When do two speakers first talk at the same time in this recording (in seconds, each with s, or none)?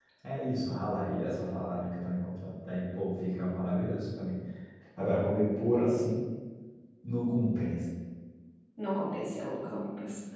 none